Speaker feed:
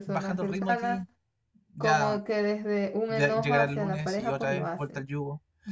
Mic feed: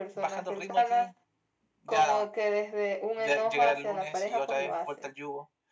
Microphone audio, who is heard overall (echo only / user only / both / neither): echo only